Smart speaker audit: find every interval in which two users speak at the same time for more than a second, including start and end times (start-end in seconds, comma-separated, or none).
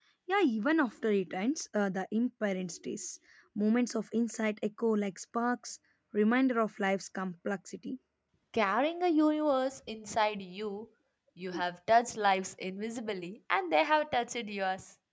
none